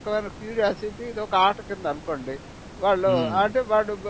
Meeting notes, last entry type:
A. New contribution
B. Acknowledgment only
B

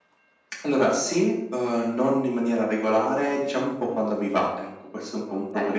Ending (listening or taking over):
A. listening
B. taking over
B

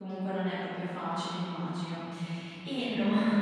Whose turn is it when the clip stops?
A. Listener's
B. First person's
B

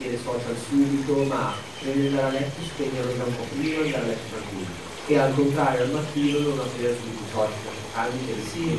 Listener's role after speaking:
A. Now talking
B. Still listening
B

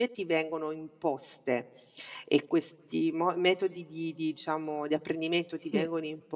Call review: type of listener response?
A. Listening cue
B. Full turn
A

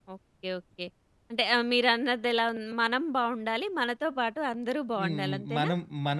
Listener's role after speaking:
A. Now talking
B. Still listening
A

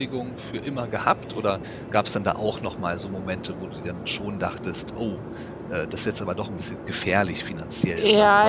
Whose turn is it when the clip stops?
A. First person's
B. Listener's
B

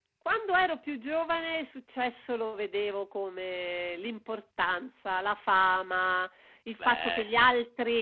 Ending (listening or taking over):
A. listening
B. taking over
A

